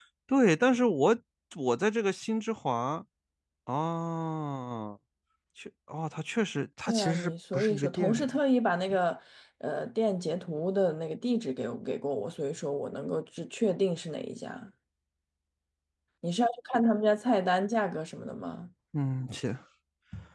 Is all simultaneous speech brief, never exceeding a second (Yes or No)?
No